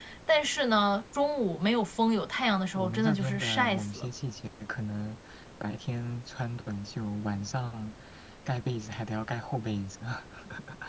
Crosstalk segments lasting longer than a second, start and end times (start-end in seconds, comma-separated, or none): 2.8-4.1